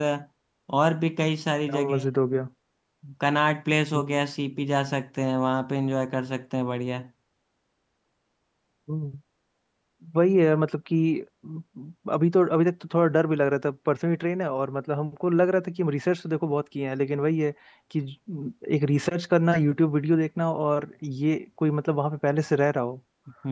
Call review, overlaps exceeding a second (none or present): none